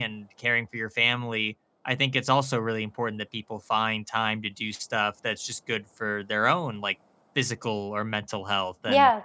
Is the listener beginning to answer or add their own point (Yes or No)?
Yes